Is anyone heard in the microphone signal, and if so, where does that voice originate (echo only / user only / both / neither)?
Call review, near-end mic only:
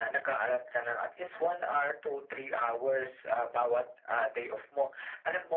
echo only